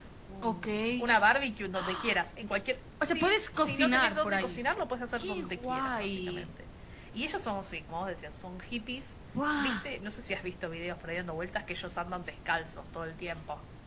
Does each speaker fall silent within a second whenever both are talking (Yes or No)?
No